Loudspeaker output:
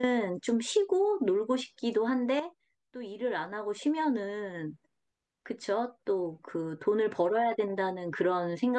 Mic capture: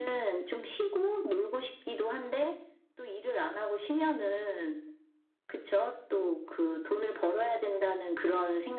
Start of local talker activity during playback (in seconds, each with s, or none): none